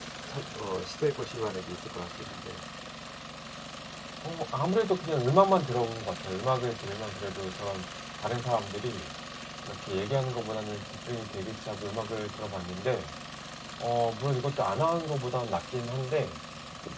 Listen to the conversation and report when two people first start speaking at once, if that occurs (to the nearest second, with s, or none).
none